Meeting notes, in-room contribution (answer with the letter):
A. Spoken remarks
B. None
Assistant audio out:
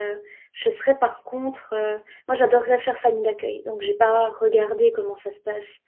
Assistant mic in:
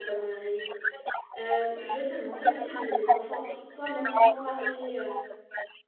A